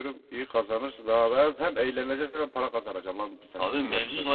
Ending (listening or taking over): taking over